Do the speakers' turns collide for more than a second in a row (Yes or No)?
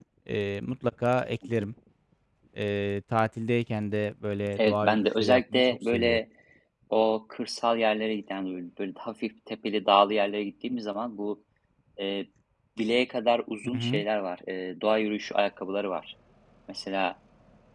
Yes